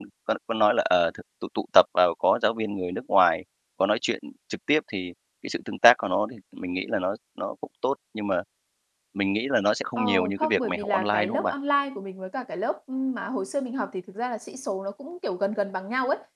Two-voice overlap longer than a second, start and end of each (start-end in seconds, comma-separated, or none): 10.0-11.5